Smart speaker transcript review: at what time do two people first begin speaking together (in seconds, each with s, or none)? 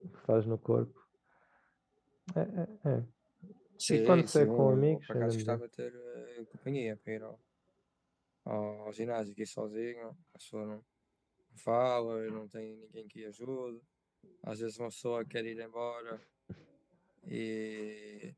3.9 s